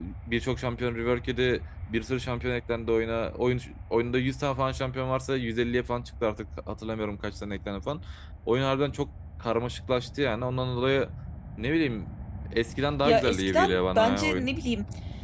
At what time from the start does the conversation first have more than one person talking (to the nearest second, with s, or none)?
13 s